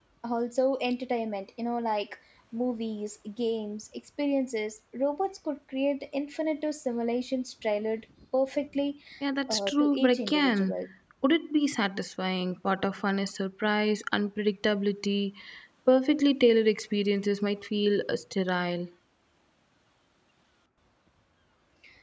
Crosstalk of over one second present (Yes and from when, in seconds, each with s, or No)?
Yes, from 9.5 s